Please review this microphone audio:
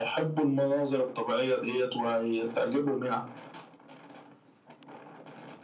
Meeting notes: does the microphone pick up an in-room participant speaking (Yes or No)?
No